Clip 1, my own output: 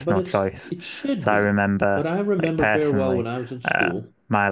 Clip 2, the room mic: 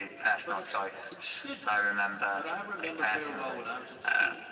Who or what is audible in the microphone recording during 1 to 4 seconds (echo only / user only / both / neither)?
echo only